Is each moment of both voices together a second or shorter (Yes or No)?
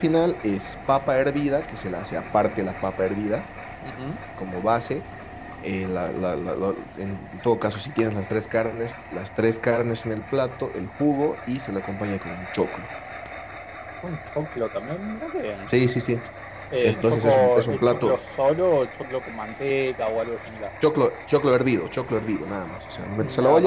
No